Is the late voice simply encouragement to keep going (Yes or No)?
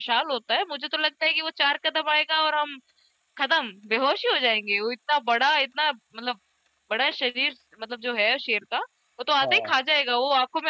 Yes